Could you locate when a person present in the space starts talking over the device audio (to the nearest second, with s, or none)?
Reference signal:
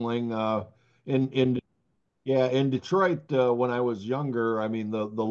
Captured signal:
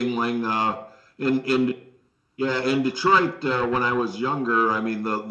none